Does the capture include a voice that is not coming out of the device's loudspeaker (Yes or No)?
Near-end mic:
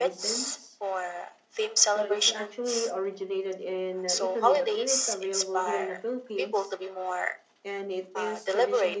Yes